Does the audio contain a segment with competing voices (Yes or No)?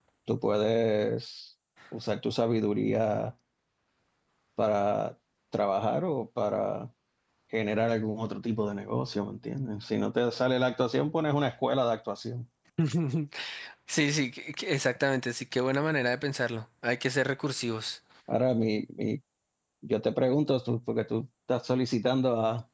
No